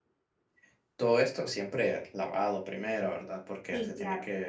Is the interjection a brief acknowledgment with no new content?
Yes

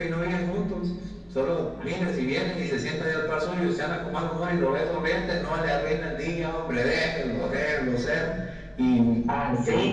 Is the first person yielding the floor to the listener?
Yes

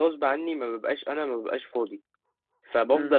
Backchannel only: Yes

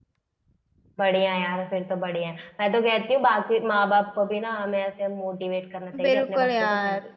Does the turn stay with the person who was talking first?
No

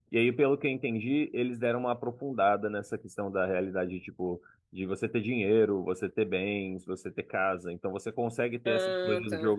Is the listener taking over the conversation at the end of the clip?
No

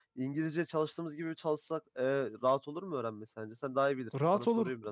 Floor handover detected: Yes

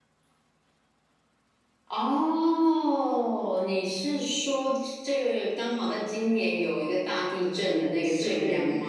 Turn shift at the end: Yes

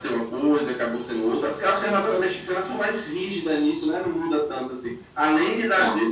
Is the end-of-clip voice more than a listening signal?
No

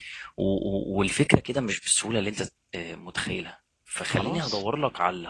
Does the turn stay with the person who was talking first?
Yes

